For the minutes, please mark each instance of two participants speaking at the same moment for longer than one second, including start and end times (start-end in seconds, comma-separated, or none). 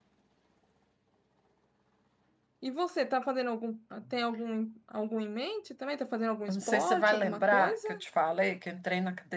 6.5-7.9